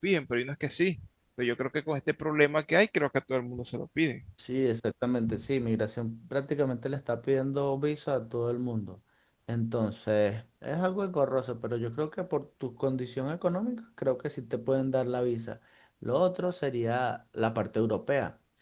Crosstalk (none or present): none